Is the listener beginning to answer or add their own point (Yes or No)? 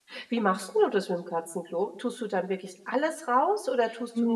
Yes